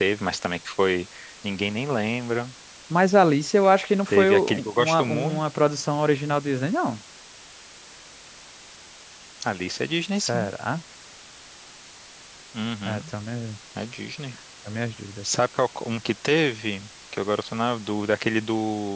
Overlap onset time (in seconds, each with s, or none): 4.1 s